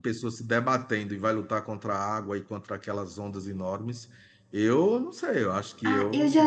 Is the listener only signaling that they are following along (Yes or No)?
No